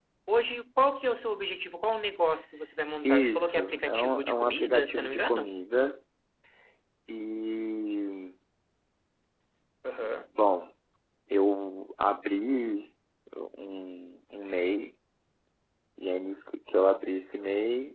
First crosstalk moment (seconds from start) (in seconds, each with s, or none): 3.0 s